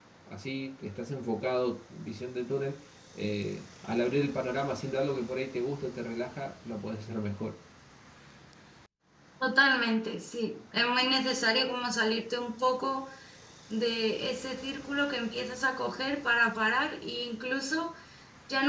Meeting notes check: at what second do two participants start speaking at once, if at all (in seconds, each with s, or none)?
none